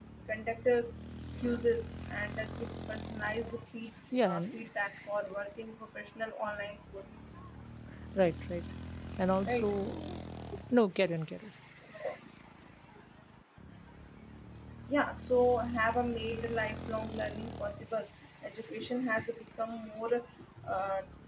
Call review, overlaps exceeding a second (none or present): none